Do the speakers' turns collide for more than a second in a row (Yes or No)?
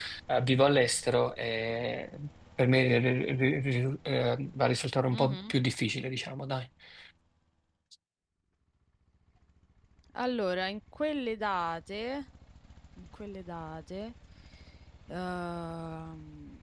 No